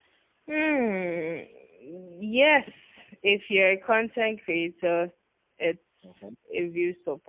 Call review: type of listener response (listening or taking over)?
listening